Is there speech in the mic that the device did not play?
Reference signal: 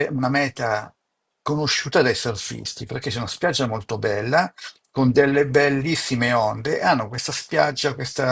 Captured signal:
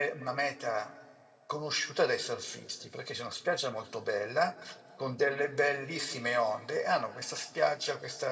No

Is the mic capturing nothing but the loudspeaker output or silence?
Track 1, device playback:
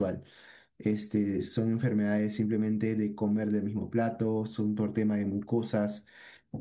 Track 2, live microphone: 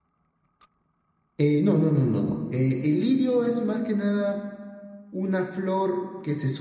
No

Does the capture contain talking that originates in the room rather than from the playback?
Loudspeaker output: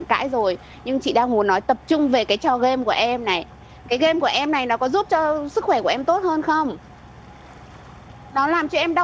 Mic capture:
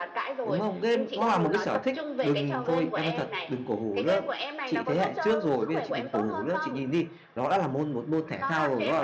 Yes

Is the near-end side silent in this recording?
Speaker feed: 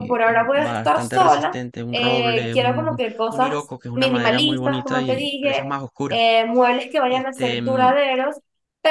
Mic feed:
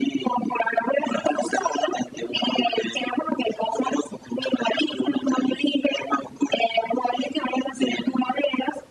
Yes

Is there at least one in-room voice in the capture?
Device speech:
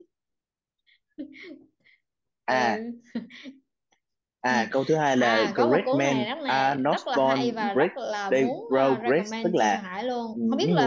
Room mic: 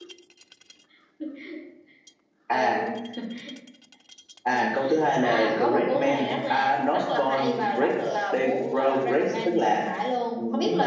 No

